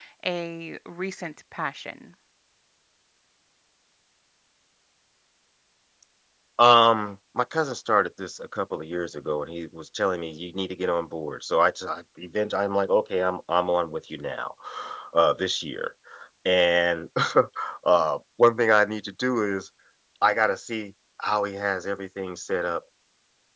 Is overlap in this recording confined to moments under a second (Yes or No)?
Yes